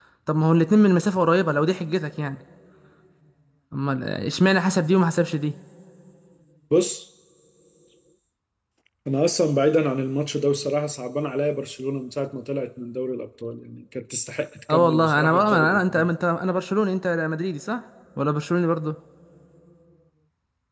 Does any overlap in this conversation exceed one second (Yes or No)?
Yes